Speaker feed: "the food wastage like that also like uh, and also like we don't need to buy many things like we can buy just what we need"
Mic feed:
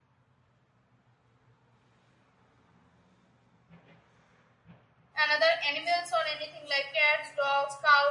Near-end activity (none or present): present